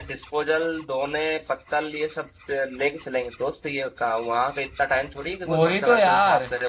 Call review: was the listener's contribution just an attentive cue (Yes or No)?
No